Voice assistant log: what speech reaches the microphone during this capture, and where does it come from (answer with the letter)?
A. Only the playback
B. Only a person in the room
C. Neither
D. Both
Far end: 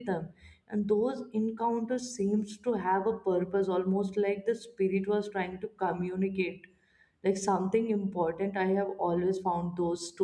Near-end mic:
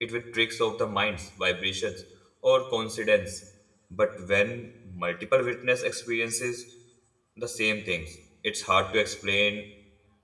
B